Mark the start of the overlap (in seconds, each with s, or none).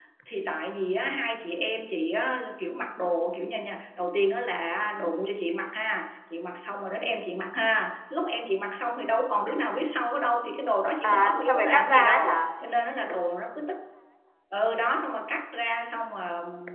11.0 s